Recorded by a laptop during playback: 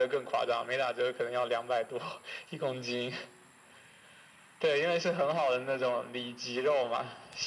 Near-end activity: none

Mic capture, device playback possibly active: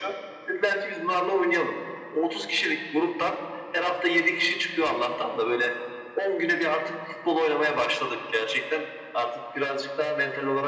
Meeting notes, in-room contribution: none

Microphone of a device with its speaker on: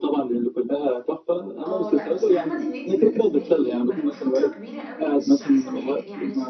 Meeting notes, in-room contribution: present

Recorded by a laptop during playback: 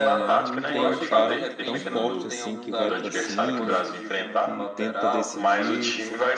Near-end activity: present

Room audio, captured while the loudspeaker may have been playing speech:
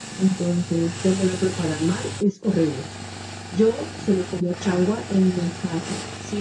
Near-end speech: none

